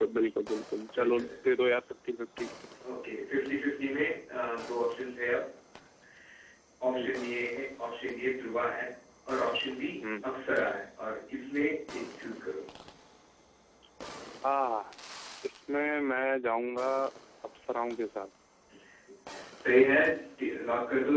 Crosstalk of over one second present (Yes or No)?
No